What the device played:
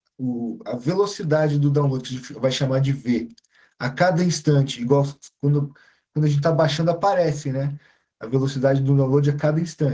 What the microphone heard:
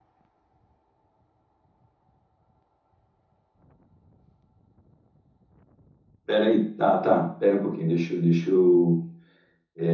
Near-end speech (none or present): present